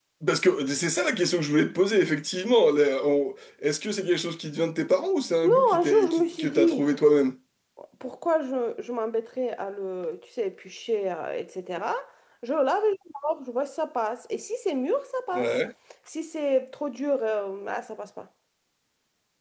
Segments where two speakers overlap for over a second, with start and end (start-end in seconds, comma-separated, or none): 5.4-6.8